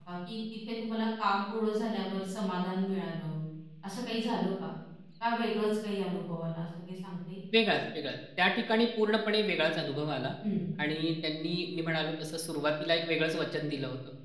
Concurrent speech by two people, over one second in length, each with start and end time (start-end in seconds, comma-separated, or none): none